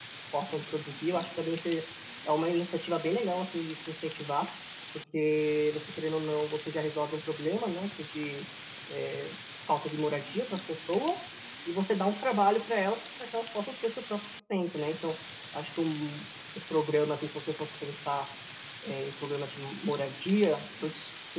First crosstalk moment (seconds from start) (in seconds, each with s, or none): none